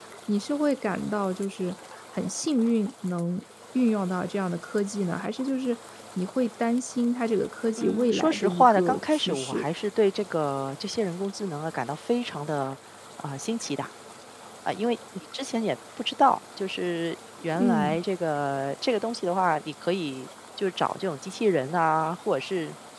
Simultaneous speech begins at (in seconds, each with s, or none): 7.8 s